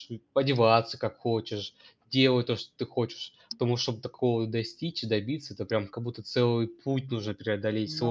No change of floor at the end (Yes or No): No